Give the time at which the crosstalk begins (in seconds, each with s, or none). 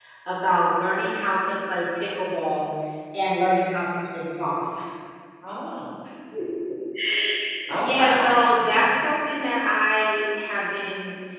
7.7 s